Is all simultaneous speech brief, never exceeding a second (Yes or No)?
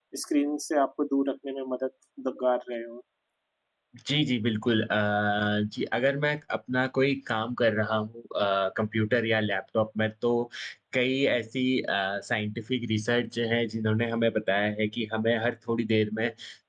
Yes